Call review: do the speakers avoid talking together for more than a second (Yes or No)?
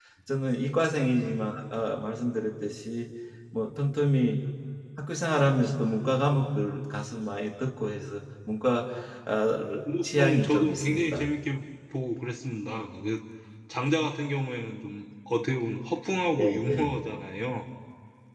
No